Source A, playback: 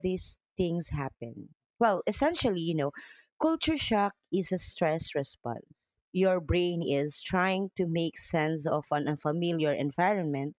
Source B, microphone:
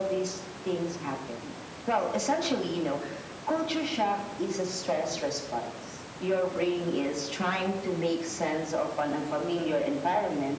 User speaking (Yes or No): No